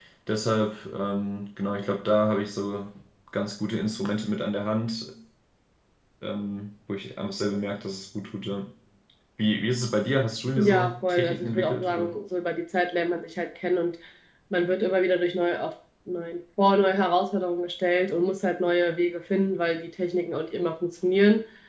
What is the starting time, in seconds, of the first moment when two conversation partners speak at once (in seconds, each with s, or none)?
10.6 s